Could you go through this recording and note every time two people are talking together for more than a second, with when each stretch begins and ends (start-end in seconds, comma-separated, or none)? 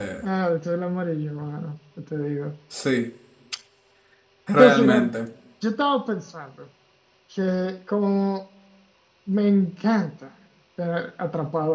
none